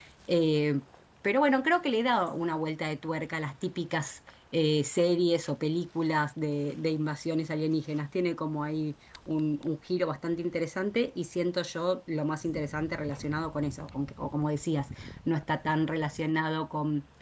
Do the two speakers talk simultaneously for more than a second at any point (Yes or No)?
No